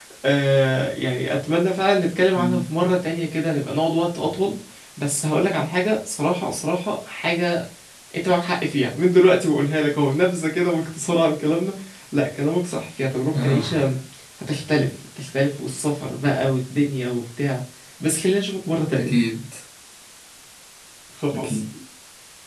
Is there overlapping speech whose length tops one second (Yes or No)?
No